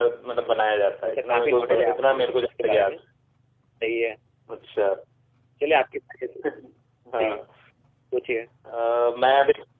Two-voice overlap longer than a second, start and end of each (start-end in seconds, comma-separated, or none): 1.3-2.9